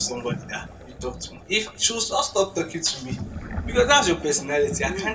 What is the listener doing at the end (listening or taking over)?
listening